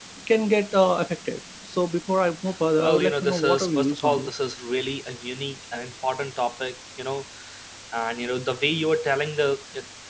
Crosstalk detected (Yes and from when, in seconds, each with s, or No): Yes, from 2.8 s